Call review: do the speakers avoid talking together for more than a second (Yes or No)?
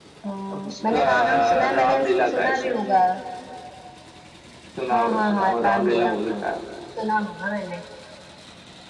No